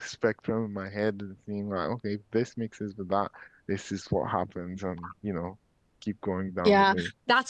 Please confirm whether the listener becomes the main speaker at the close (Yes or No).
Yes